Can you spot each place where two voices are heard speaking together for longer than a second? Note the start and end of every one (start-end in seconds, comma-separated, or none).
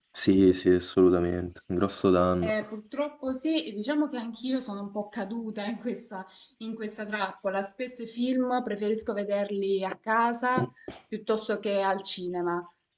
none